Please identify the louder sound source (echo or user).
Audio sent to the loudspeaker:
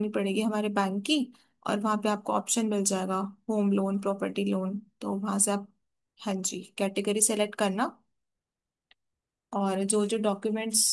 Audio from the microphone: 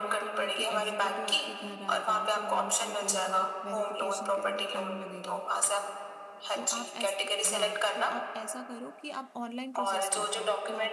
echo